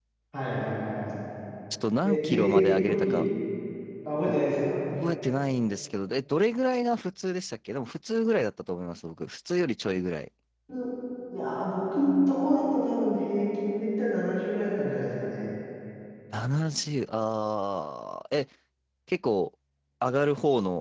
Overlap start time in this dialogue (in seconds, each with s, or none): 2.0 s